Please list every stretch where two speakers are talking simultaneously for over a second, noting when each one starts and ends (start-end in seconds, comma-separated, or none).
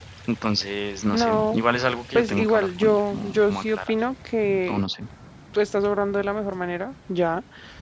2.1-3.9